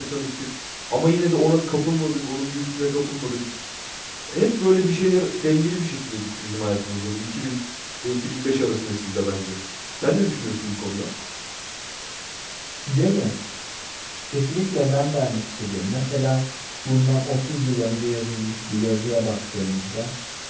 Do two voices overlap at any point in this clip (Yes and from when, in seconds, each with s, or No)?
No